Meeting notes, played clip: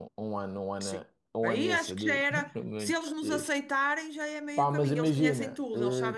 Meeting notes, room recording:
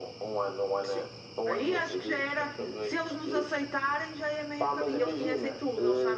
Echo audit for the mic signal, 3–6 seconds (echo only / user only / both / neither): echo only